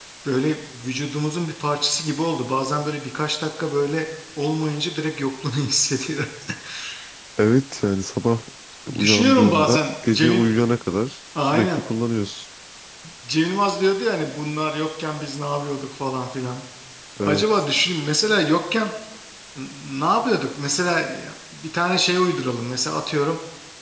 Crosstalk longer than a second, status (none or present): present